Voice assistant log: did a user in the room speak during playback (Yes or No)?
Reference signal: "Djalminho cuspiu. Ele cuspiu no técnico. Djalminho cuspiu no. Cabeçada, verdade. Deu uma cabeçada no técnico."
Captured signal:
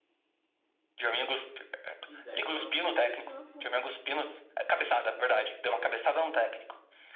Yes